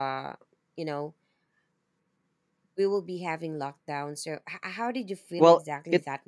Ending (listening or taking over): taking over